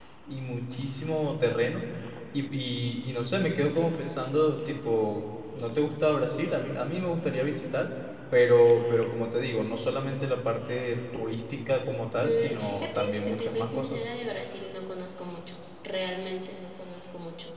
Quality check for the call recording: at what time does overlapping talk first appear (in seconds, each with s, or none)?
12.2 s